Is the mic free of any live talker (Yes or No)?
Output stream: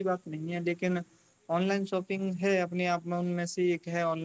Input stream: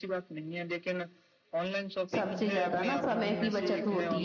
No